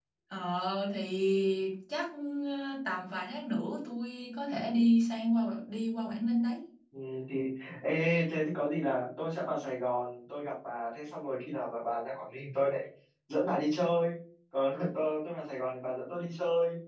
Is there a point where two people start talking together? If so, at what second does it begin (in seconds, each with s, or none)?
none